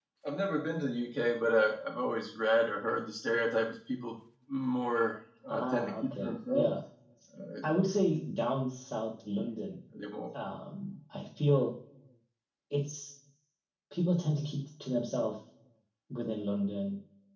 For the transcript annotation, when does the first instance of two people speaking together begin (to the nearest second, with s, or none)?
5 s